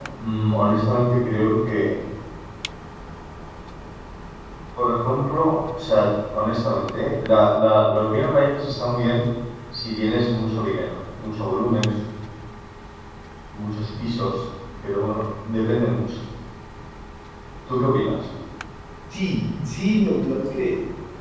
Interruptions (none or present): none